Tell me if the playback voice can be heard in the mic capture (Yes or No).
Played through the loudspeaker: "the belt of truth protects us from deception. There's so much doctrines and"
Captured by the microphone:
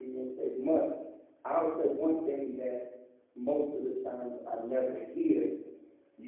No